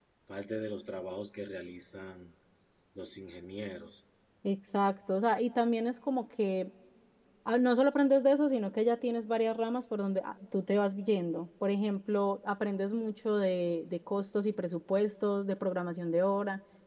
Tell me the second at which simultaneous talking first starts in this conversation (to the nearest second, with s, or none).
none